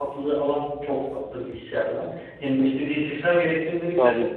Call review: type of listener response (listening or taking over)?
listening